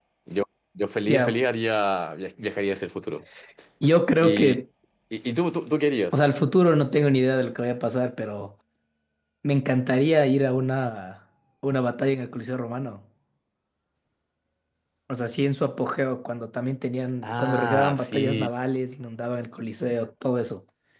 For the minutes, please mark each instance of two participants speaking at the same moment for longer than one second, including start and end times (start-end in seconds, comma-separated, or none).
17.2-18.5